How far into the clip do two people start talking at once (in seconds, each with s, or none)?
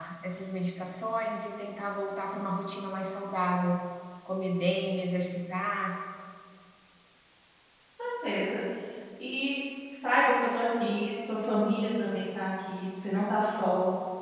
none